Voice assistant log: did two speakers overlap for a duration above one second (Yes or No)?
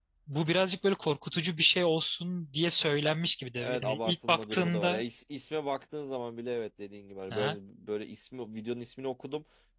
Yes